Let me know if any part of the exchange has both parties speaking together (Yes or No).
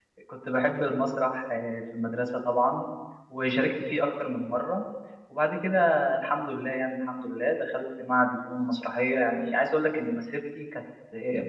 No